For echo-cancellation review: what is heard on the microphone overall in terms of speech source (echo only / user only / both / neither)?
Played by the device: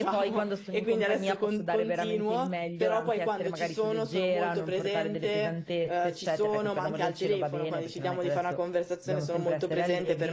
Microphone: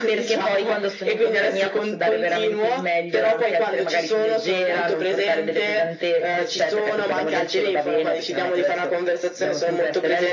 echo only